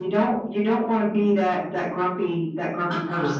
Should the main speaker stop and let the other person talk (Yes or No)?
Yes